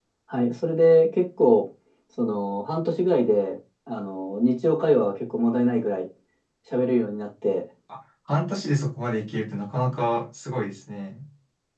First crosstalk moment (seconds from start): none

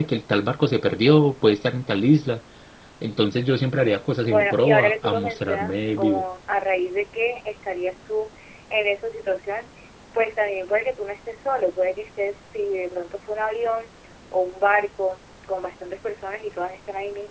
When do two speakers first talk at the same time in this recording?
4 s

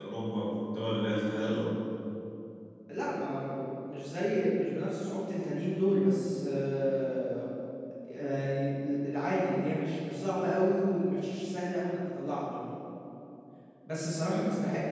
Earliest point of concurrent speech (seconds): none

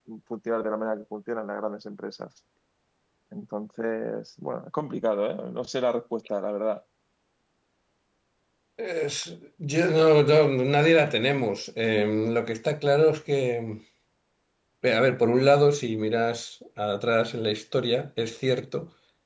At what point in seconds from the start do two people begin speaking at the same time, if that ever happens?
none

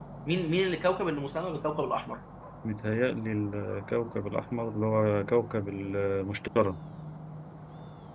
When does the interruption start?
none

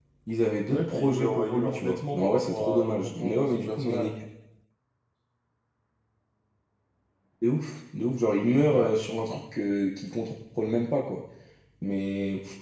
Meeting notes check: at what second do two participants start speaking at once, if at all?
1 s

